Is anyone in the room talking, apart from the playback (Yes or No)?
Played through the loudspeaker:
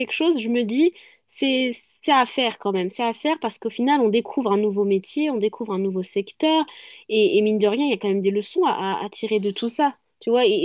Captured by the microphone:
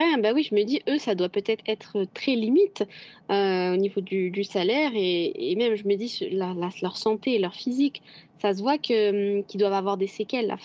Yes